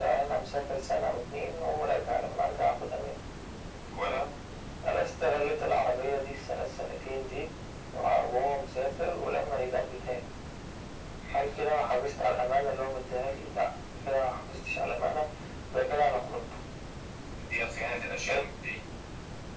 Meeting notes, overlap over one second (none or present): none